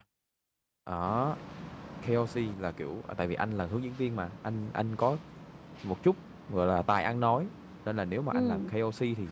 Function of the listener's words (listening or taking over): listening